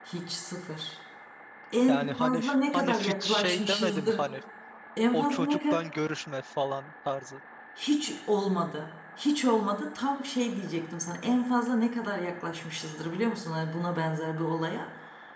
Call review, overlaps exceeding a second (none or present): present